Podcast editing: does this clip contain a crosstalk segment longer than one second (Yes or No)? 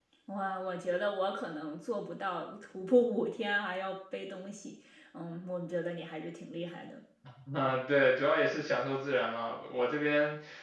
No